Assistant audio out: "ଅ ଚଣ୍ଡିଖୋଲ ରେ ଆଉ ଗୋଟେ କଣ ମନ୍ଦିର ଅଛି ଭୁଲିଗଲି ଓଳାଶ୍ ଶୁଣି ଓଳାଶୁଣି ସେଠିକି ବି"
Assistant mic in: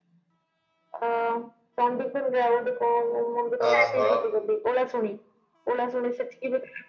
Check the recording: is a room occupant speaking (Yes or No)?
Yes